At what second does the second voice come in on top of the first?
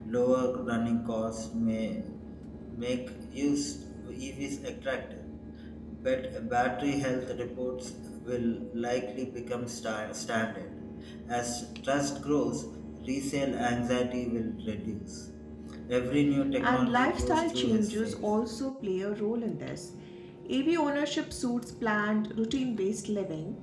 16.6 s

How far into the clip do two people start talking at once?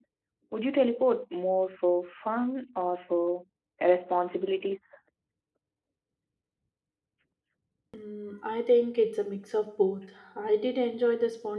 none

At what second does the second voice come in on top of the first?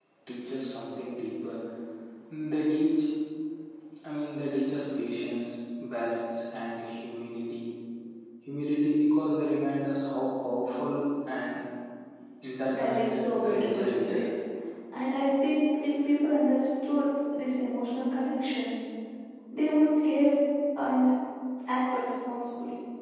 12.6 s

